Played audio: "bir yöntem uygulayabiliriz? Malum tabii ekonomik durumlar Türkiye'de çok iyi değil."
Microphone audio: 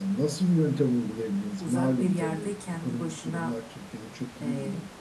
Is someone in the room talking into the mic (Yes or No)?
Yes